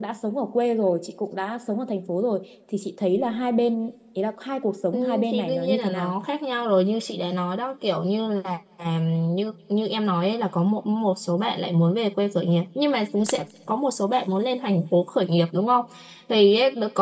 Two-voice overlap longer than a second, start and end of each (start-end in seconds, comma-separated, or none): 4.9-6.1